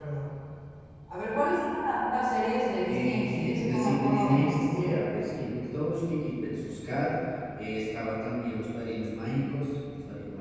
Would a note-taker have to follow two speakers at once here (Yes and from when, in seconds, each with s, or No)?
Yes, from 2.9 s